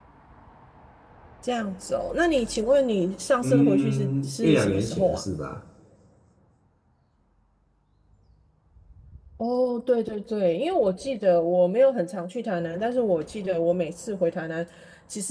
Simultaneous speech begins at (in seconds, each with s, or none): 3.4 s